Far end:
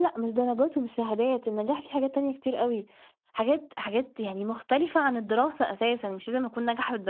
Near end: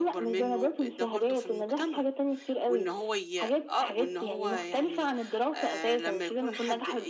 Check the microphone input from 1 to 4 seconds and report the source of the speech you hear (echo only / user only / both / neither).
both